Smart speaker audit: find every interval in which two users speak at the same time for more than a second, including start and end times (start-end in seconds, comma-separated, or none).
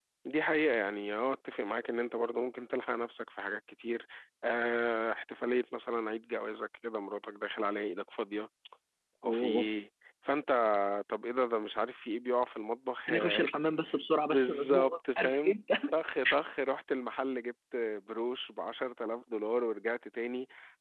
14.2-15.5